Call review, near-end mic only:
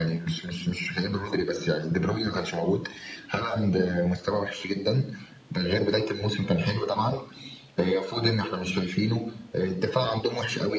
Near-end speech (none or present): none